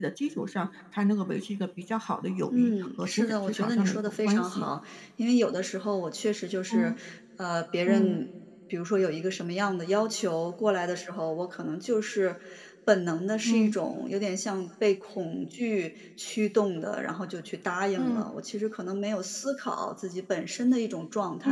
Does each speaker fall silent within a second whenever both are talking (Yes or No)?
No